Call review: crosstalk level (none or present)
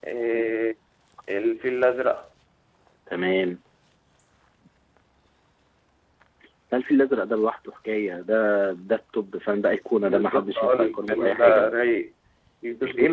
present